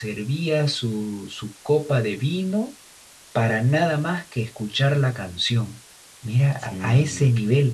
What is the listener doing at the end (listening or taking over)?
listening